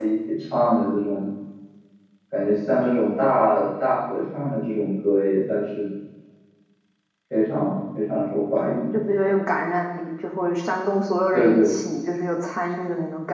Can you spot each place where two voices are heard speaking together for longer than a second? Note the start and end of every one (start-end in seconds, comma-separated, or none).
none